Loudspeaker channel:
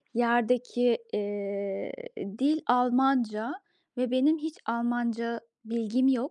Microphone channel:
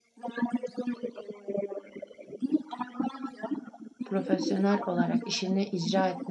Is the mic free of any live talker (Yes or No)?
No